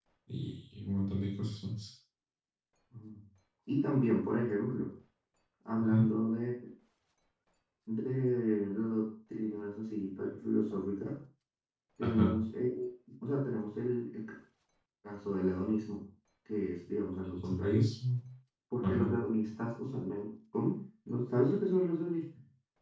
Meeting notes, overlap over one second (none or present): none